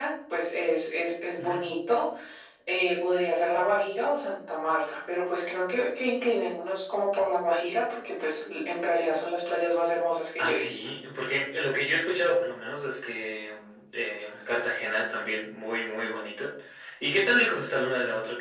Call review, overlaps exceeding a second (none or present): none